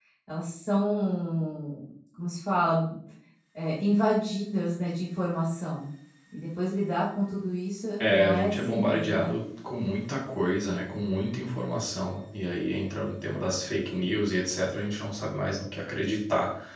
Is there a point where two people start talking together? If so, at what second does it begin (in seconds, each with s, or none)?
8.0 s